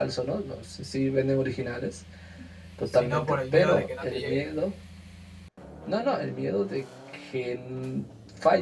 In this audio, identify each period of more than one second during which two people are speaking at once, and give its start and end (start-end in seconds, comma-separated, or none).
2.9-4.4